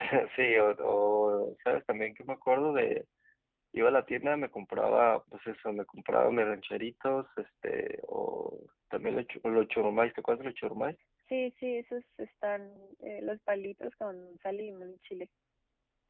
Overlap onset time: none

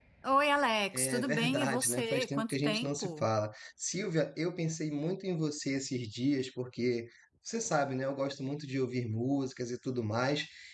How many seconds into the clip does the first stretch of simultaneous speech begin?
0.9 s

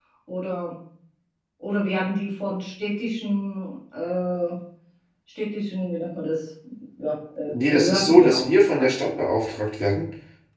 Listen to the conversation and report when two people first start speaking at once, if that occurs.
7.5 s

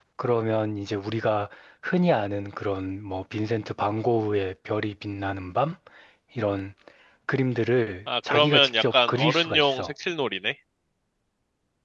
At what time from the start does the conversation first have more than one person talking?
8.1 s

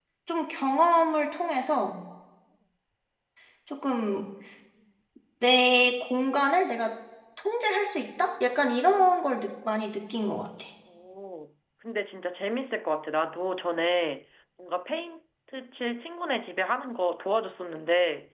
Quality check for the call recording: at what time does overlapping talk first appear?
none

